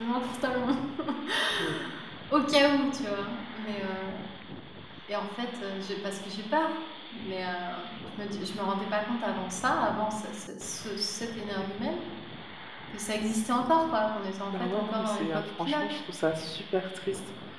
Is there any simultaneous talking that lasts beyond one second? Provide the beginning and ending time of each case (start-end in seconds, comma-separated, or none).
14.5-15.8